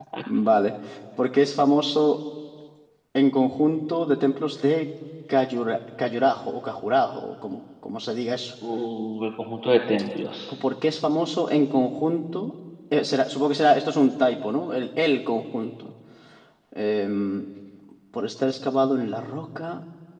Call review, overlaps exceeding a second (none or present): none